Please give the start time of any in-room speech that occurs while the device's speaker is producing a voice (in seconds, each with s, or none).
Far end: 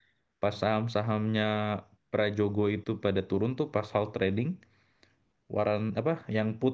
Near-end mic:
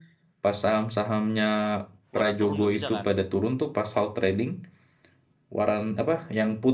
2.2 s